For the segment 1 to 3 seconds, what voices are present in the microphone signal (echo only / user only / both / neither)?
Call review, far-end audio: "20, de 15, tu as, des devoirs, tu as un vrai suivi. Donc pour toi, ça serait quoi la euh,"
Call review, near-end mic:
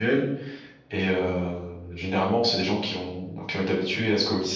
user only